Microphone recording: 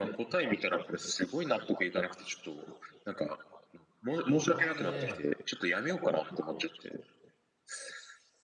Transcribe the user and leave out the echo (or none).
カメ、